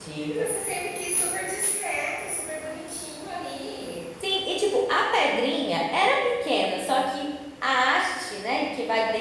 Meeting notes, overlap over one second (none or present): none